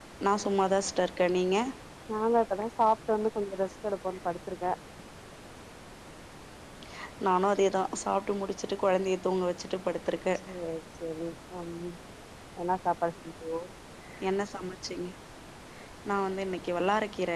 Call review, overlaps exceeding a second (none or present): none